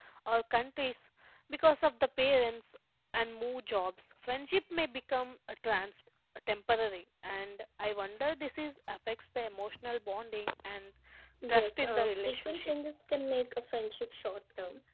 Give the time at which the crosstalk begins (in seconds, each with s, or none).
11.5 s